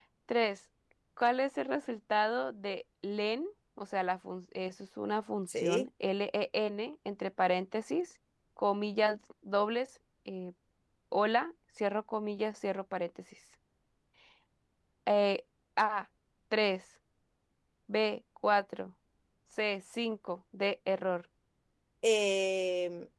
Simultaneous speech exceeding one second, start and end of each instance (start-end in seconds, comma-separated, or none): none